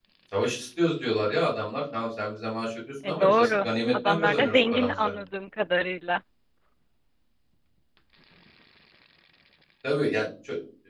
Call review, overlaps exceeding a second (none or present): present